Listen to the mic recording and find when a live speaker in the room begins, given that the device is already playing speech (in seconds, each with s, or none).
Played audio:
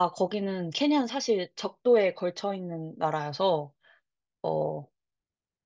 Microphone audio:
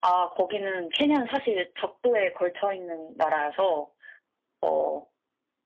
none